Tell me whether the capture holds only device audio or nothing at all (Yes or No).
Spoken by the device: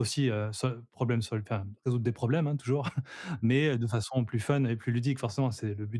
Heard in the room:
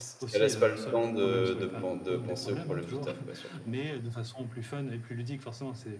No